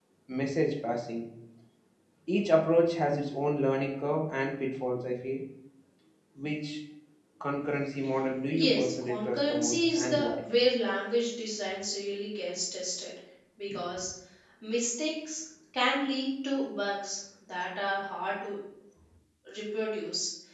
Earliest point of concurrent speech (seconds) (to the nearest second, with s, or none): 8 s